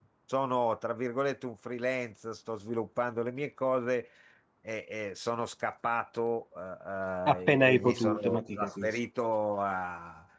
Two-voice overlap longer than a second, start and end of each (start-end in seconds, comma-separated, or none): 7.3-9.0